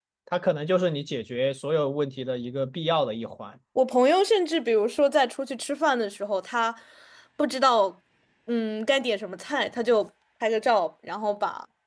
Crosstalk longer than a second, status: none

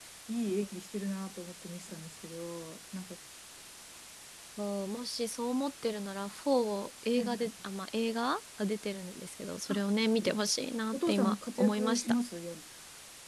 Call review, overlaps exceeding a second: present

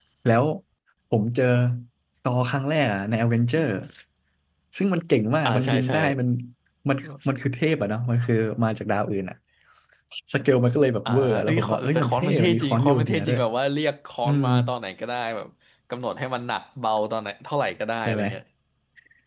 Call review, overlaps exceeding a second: present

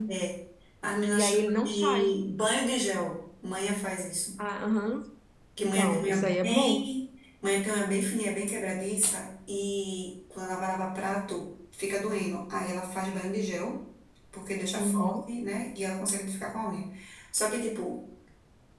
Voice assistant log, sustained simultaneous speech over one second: present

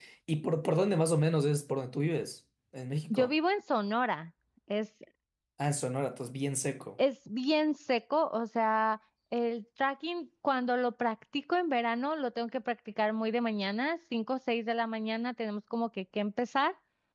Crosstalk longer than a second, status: none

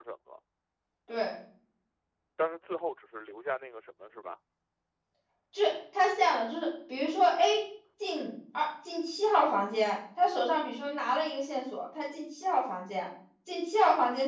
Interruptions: none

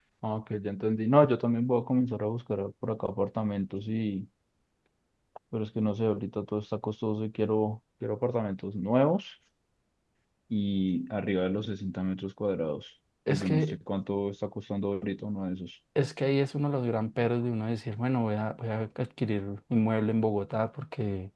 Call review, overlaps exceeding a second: none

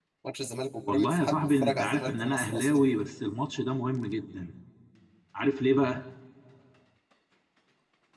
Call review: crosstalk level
present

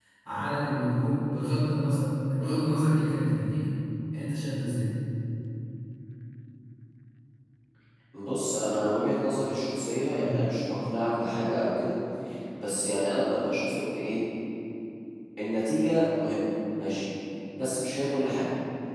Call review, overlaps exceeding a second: none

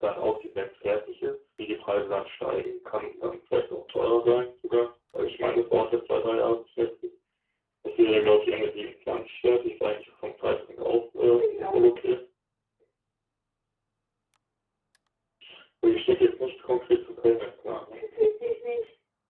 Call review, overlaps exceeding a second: none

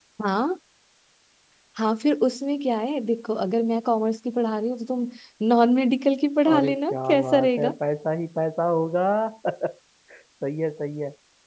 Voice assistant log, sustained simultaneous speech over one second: present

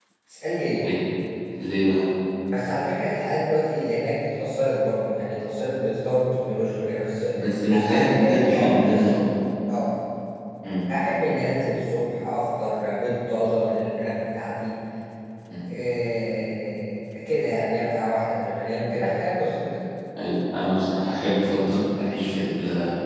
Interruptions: present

